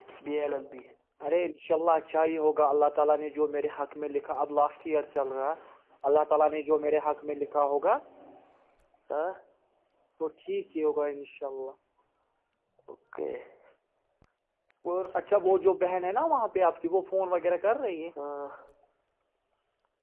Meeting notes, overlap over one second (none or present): none